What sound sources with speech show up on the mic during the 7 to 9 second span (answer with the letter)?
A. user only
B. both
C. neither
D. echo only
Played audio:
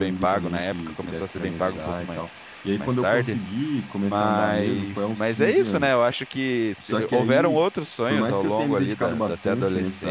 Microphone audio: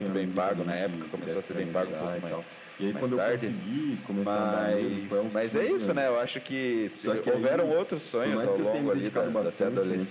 D